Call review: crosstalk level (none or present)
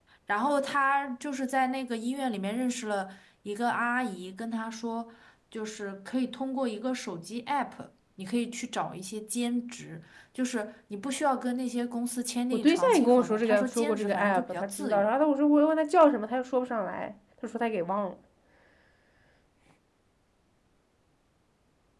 present